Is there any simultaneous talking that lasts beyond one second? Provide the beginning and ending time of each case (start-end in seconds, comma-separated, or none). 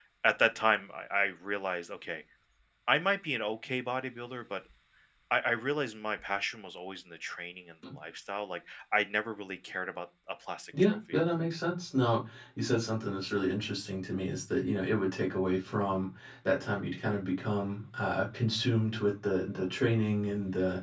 none